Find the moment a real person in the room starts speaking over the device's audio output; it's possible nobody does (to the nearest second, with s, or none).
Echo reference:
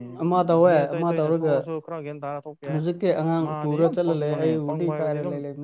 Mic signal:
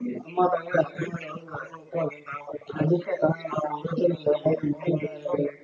none